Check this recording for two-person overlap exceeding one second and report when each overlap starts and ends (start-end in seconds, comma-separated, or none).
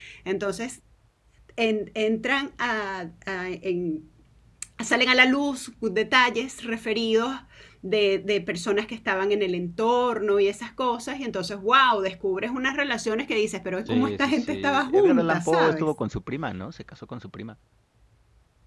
13.9-15.9